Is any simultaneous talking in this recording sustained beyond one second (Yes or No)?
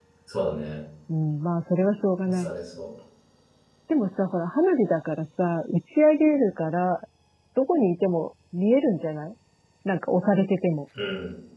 No